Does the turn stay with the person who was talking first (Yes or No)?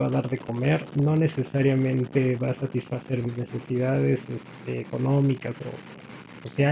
Yes